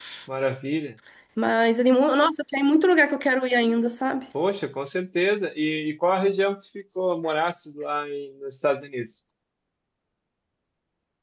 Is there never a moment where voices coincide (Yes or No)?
Yes